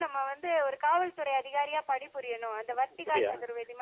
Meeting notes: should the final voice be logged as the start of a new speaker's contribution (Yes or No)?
Yes